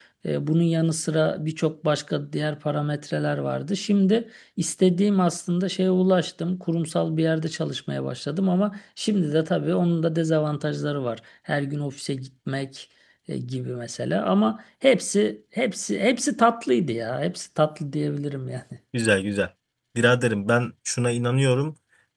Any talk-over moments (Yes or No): No